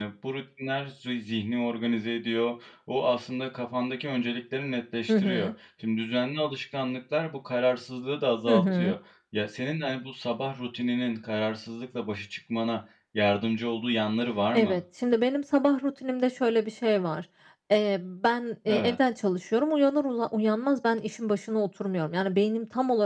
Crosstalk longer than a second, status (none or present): none